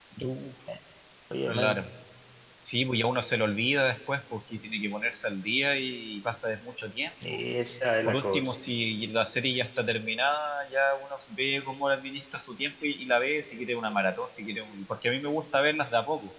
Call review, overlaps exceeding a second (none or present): none